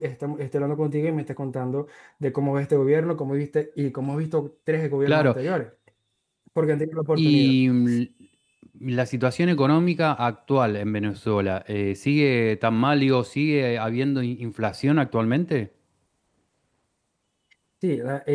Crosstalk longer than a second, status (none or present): none